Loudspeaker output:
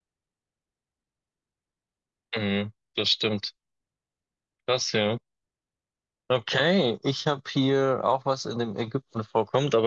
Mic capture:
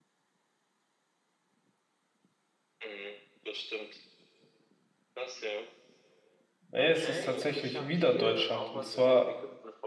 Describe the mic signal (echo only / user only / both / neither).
both